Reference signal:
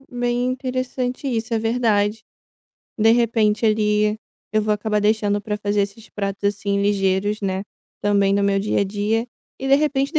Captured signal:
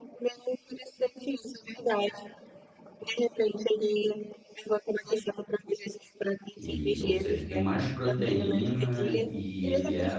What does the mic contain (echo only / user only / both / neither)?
both